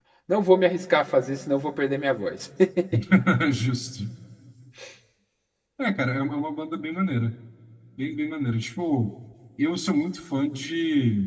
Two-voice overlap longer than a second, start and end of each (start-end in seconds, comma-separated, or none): none